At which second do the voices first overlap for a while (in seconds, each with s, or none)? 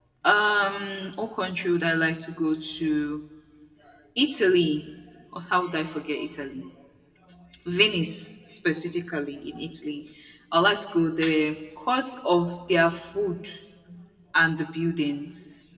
none